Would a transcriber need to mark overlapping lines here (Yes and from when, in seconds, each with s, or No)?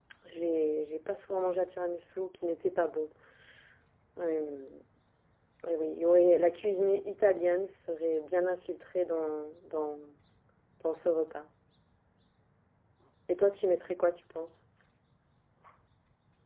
No